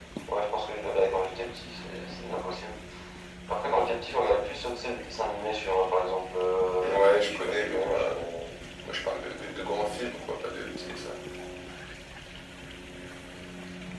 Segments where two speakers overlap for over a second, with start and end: 6.8-8.2

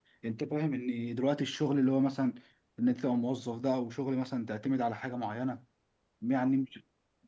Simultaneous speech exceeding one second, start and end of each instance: none

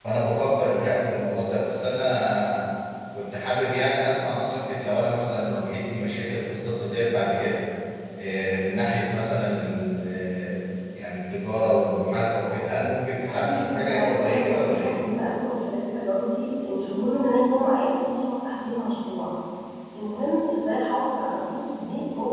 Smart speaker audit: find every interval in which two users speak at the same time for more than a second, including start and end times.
13.4-14.9

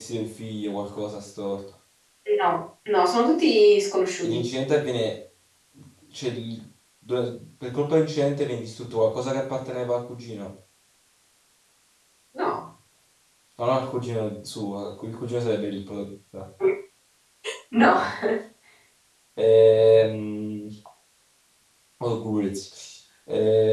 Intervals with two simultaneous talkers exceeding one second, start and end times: none

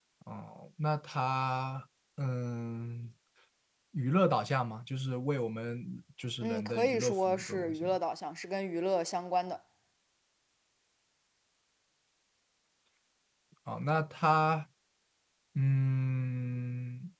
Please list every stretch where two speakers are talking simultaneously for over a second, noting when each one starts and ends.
6.4-8.0

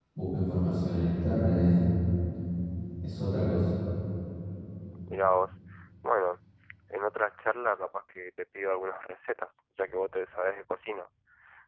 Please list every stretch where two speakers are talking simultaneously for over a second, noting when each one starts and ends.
none

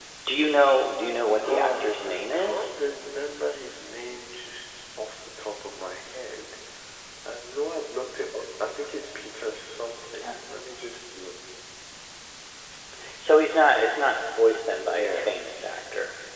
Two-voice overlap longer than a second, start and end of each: 1.4-2.7

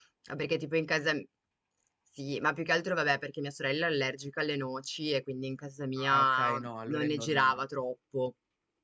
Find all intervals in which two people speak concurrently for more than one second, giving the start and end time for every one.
6.1-7.6

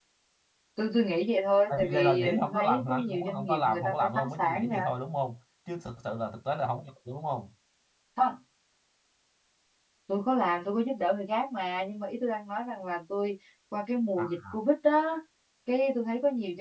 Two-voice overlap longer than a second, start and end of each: 1.7-4.7

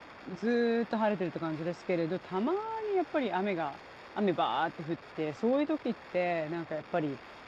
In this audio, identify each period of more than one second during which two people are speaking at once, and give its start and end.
none

